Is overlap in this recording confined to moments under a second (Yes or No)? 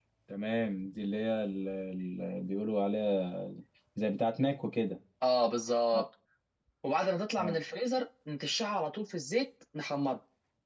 Yes